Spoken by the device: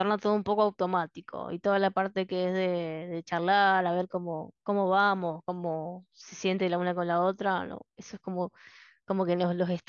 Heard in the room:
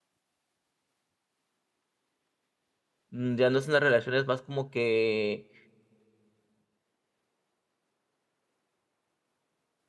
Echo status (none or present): none